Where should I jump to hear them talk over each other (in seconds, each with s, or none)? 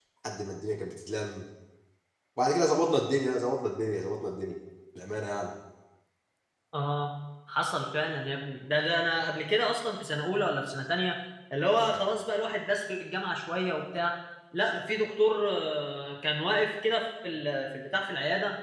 none